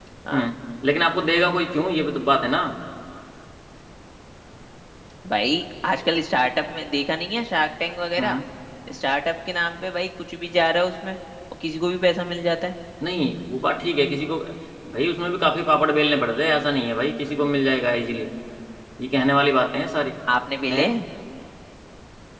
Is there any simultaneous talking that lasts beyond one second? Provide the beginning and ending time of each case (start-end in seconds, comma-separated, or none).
none